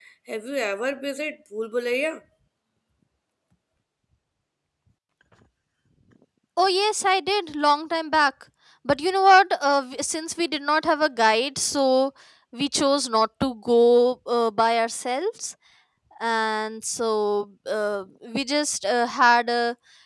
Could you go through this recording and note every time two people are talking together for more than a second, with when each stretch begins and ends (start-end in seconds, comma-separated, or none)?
none